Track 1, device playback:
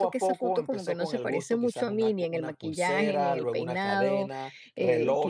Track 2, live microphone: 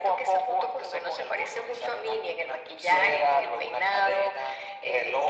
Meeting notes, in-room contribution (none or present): present